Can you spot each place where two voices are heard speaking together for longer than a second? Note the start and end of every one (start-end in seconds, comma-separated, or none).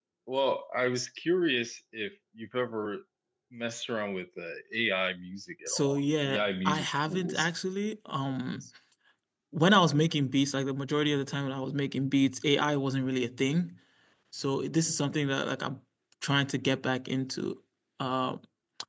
5.7-7.5